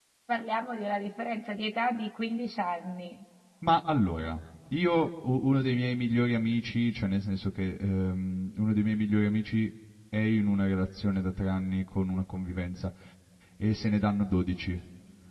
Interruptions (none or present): none